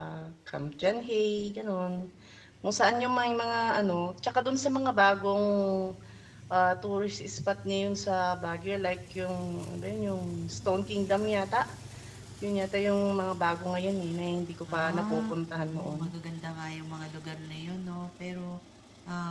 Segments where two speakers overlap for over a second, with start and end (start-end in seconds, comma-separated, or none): 14.7-16.0